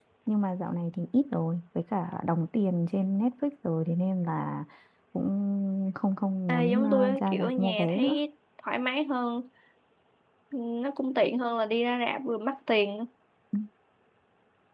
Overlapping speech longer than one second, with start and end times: 6.5-8.2

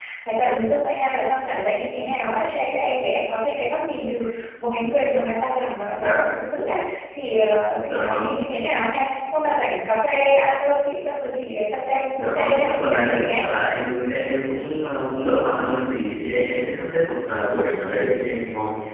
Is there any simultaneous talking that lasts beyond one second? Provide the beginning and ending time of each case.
12.1-13.4

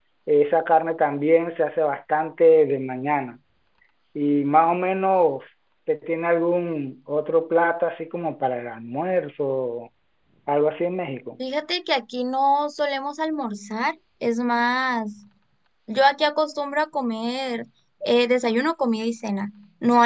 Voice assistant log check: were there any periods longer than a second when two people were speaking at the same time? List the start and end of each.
none

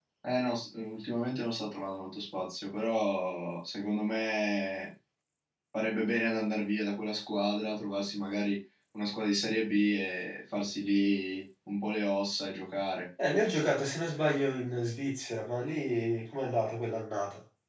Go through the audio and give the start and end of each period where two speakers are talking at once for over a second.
none

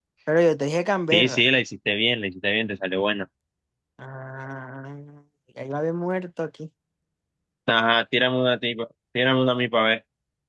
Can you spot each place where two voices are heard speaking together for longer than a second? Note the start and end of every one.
none

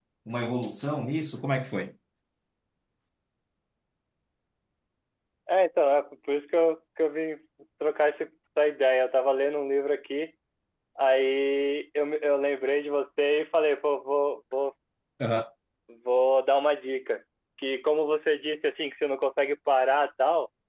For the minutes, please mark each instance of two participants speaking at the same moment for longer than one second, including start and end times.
none

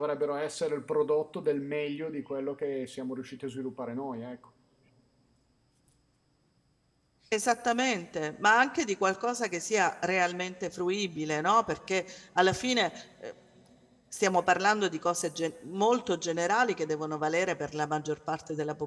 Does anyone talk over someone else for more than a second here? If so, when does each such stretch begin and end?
none

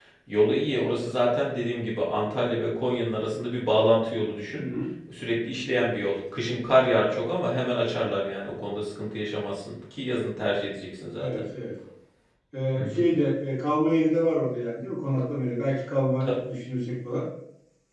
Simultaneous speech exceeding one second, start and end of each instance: none

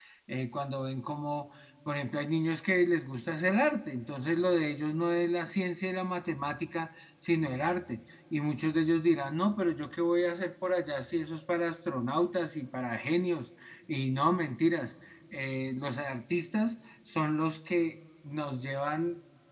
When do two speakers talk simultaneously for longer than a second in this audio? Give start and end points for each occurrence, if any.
none

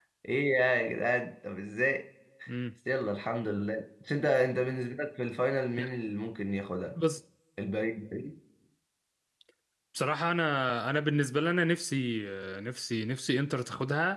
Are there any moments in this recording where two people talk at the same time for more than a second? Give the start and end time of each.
none

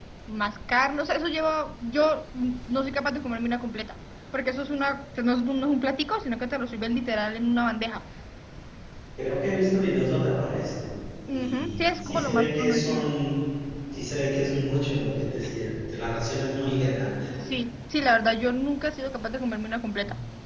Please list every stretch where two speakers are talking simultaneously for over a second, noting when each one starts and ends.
11.3-13.2

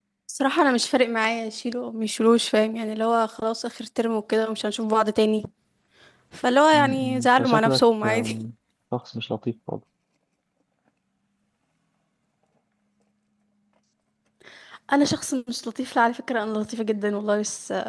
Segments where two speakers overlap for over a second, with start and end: 6.7-8.3

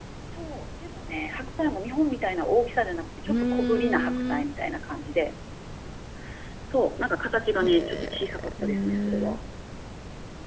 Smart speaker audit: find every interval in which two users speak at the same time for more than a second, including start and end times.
3.3-4.5, 7.6-9.4

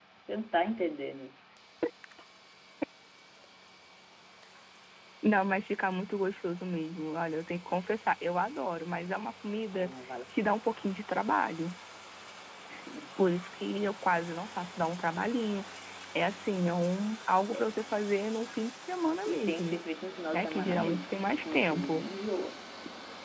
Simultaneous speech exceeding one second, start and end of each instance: 20.3-22.0

